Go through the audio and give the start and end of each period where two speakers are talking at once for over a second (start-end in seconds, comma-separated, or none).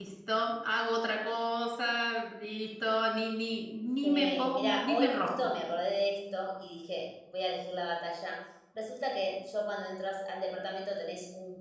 4.0-5.5